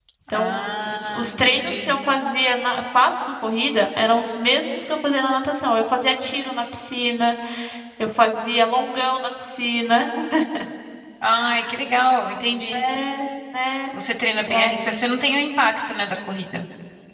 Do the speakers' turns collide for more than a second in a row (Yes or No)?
Yes